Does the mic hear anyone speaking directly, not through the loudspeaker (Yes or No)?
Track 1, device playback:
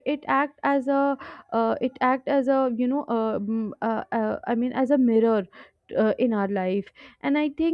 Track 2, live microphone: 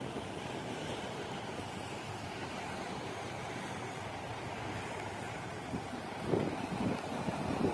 No